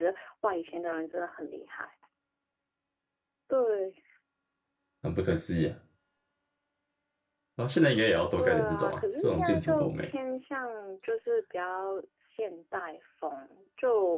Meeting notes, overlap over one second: present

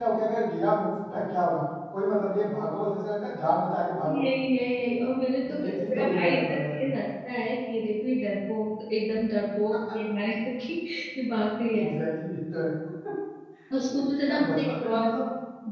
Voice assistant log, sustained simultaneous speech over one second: present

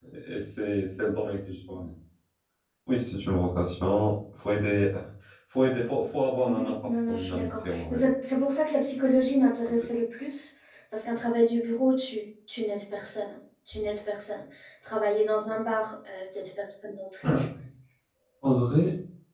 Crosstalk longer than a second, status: present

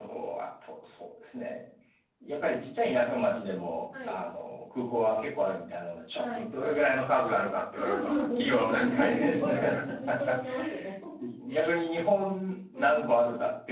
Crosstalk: present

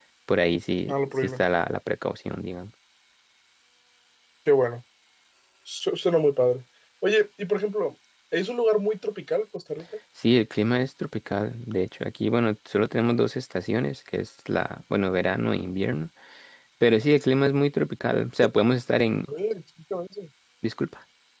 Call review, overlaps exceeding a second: none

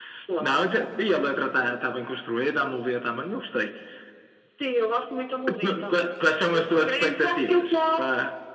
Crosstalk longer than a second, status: present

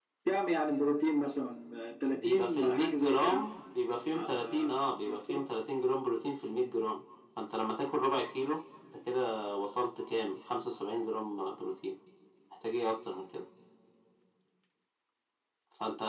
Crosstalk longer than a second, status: present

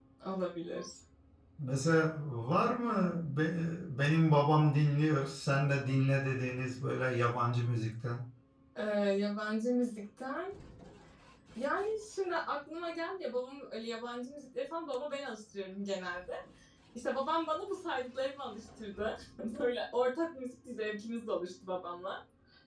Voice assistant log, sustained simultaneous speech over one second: none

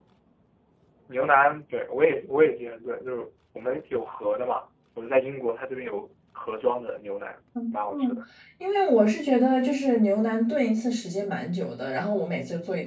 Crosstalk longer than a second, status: none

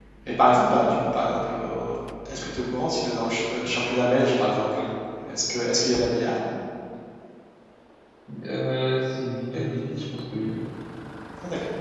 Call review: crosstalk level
none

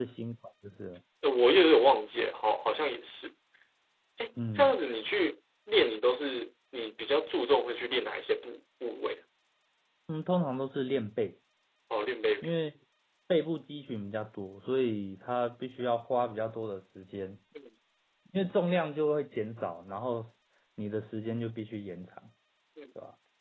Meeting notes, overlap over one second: none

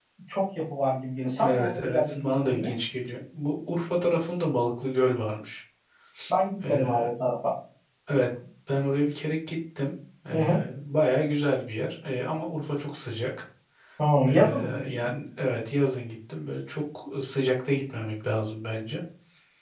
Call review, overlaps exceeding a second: present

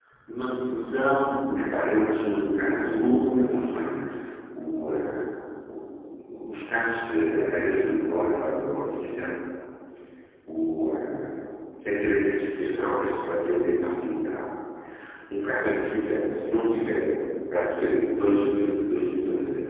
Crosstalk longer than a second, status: present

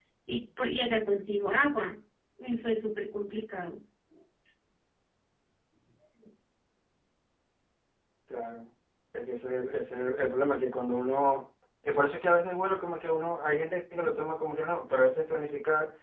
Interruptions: none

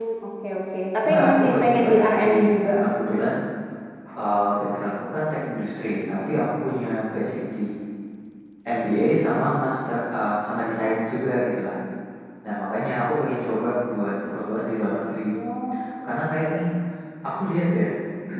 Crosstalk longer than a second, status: present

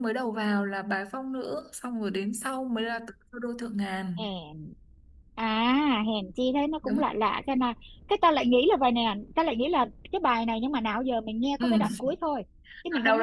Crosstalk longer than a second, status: none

